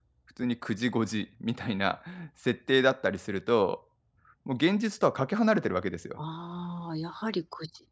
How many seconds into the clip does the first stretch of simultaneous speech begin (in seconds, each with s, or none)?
none